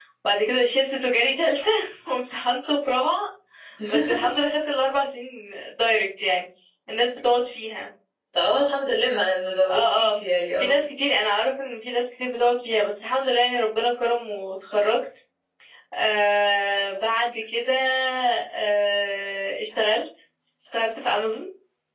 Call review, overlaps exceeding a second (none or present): none